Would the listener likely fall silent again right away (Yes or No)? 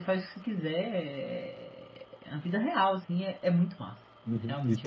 No